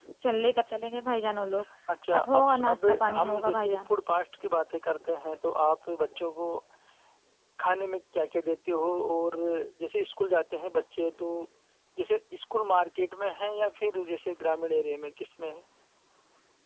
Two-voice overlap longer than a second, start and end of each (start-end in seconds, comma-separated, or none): 2.2-3.9